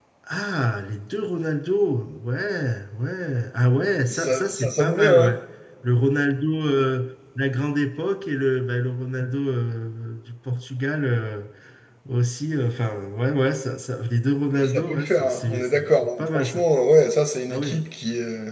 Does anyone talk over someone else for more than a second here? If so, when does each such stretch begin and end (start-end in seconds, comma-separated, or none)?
4.1-5.3, 14.6-16.6